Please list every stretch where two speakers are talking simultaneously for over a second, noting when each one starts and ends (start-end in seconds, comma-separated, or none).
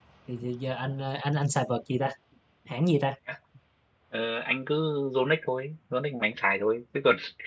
none